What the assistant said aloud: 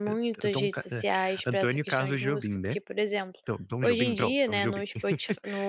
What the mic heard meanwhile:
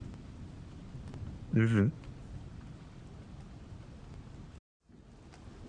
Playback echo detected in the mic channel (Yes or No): No